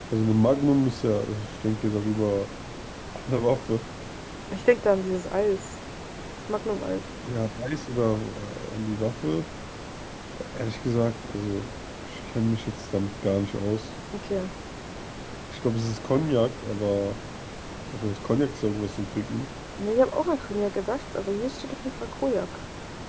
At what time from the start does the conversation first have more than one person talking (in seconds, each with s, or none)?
none